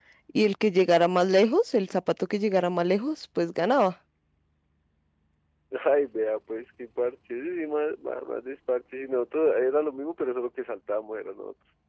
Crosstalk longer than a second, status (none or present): none